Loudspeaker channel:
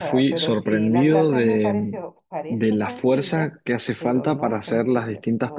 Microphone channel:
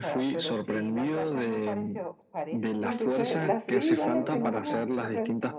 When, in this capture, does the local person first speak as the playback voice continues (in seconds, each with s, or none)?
2.8 s